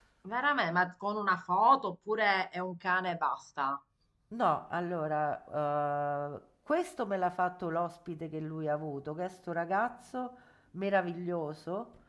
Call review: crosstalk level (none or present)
none